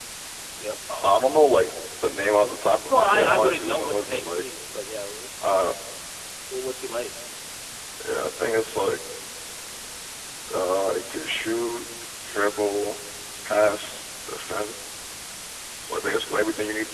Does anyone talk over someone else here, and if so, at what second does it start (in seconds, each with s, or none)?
2.9 s